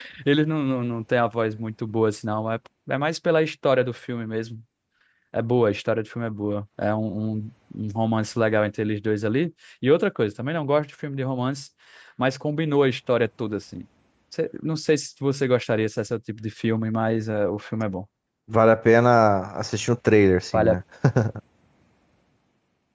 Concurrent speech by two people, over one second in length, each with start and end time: none

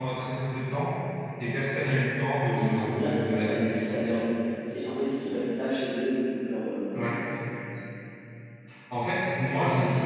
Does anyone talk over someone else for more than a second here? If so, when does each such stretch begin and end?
2.5-4.2

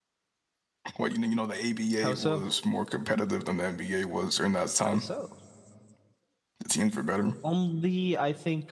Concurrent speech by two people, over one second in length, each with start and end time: none

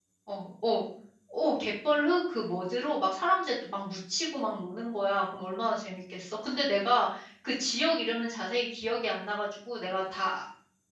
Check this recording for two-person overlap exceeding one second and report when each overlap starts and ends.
none

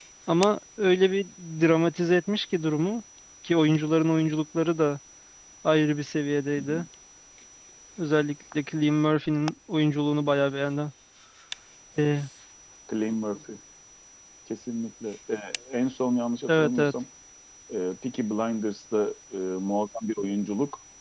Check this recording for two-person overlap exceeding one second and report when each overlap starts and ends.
none

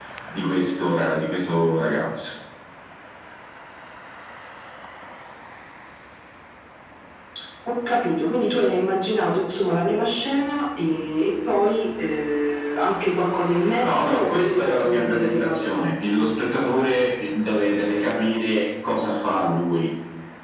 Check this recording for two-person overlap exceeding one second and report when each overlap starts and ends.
13.8-15.8

